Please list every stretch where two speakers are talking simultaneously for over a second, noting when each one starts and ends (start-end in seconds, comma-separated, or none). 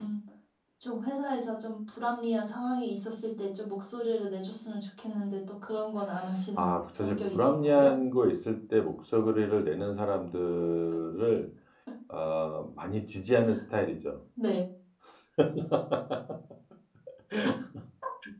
6.6-7.9